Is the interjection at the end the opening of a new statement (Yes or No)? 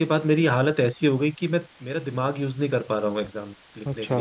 No